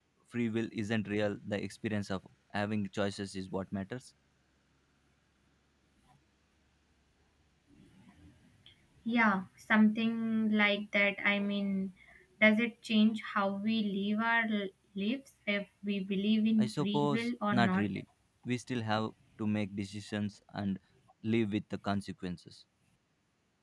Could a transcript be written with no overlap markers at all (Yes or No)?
No